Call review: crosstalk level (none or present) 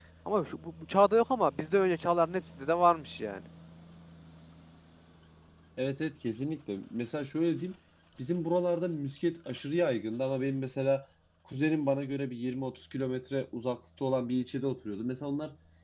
none